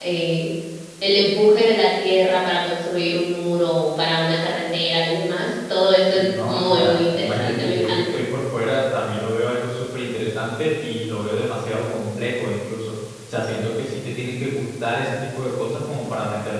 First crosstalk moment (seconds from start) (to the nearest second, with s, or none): 6 s